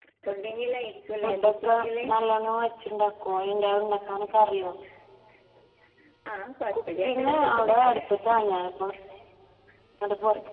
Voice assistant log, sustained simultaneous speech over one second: present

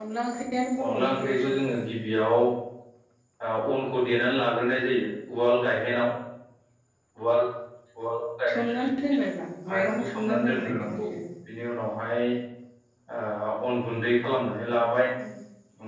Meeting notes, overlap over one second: present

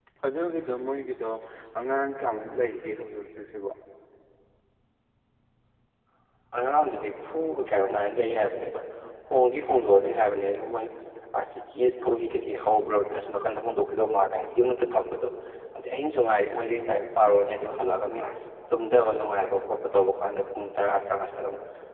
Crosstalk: none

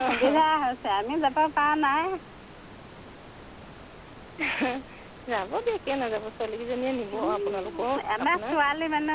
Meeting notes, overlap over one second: present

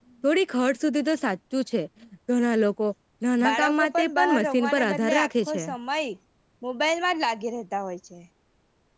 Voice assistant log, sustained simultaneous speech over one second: present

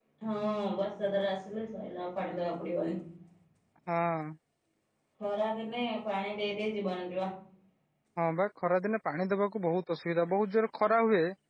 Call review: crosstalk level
none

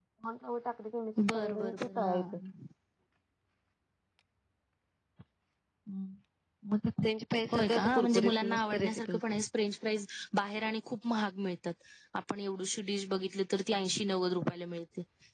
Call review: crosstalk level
present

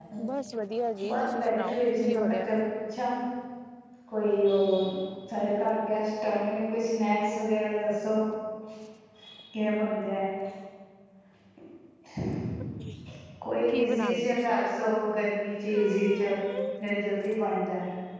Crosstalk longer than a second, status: present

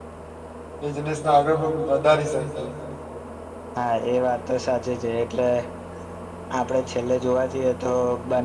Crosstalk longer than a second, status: none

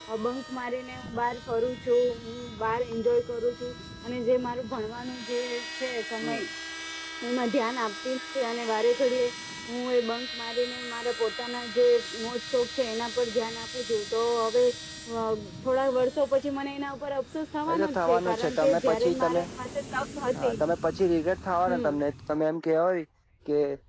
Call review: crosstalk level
present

